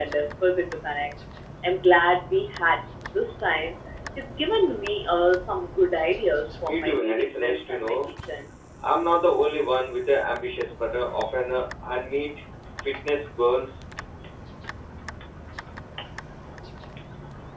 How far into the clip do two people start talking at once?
6.7 s

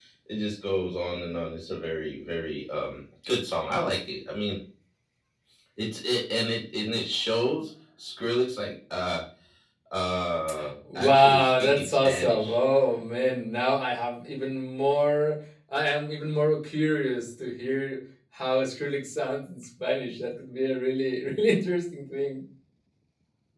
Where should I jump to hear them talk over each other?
10.9 s

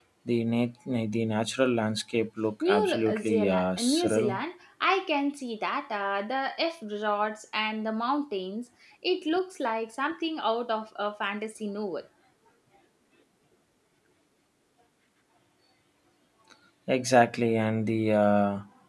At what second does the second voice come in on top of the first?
2.6 s

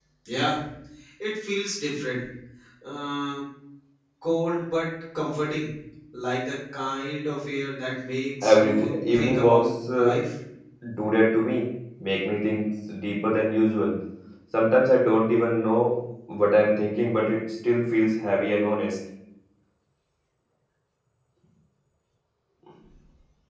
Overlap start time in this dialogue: 8.4 s

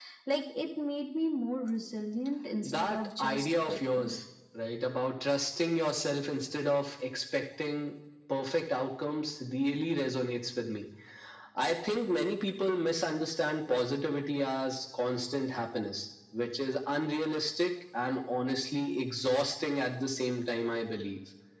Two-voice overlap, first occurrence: 2.6 s

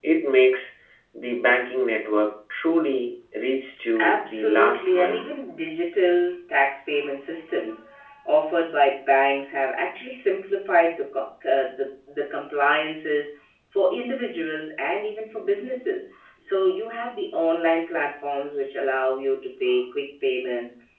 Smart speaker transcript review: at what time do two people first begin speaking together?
4.0 s

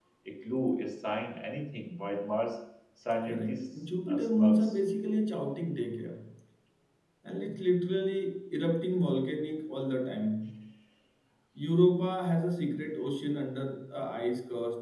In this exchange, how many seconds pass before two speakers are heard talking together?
3.2 s

